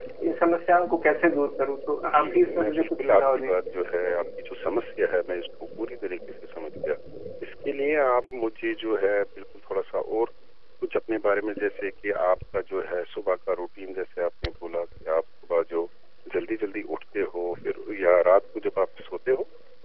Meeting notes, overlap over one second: present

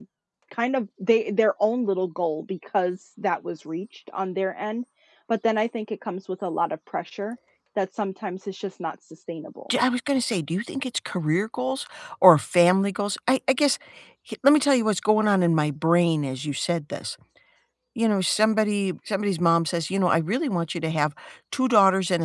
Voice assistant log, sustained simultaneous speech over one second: none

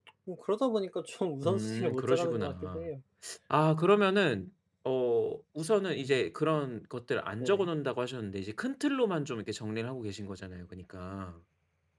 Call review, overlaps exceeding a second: present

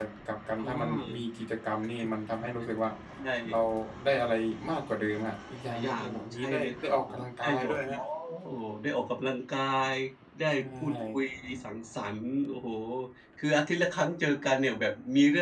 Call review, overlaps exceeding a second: present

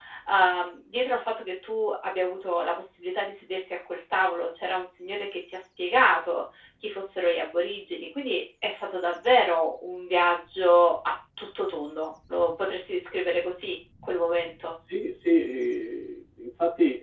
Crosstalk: none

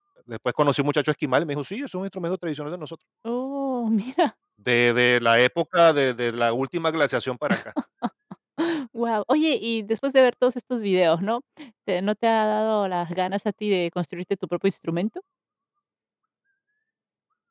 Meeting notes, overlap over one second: none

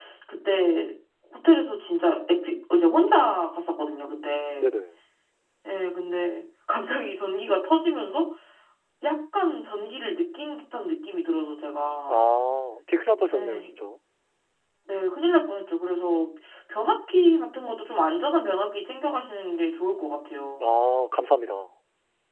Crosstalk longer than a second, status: none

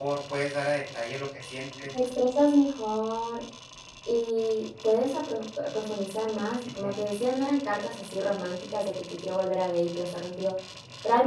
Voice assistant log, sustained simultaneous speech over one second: none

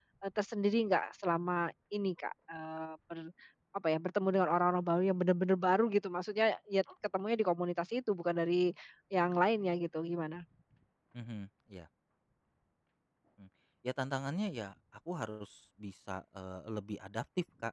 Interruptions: none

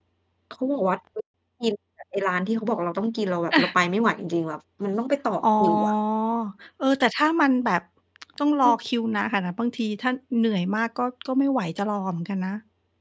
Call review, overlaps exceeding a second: none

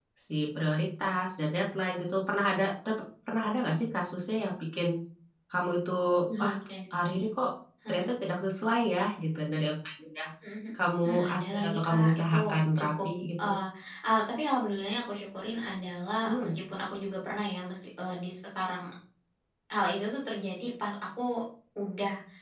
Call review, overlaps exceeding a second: present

